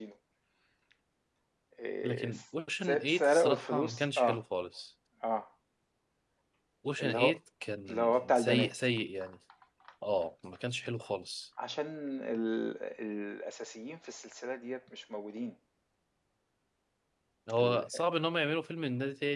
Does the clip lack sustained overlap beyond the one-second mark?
No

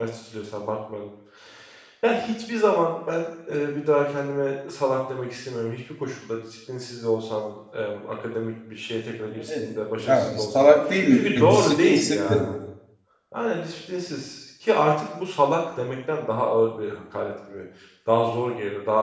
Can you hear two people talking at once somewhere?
Yes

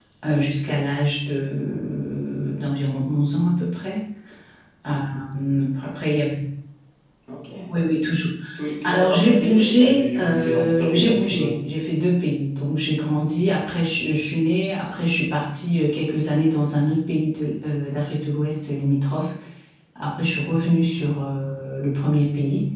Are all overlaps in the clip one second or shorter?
No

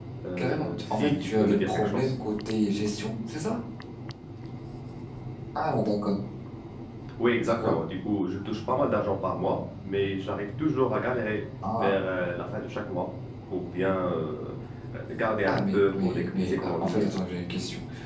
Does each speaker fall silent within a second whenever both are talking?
No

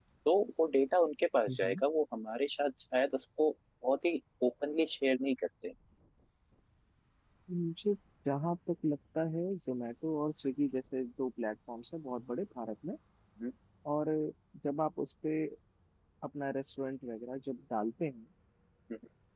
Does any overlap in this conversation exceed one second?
No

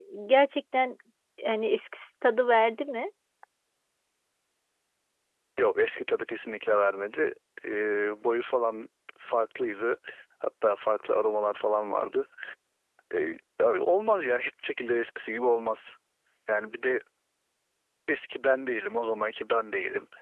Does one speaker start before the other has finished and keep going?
No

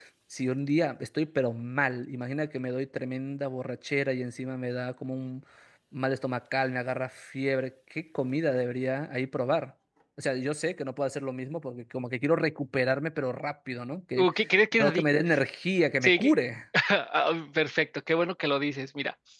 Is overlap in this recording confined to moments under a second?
Yes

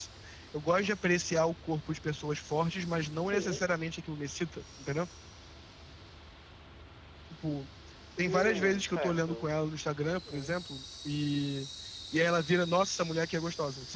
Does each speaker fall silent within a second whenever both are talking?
No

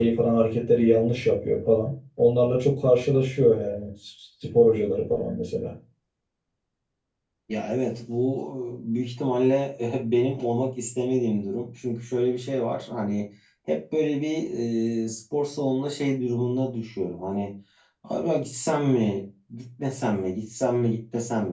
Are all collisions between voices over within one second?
Yes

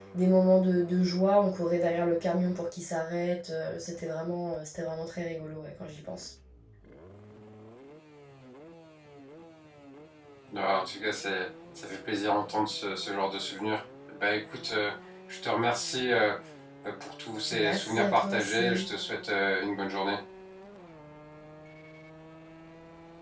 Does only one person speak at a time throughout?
No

